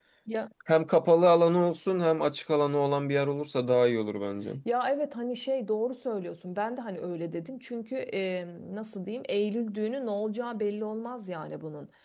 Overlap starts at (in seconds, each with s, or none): none